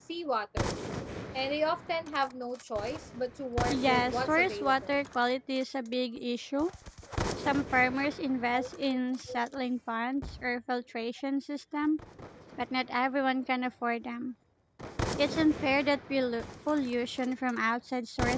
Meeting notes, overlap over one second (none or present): present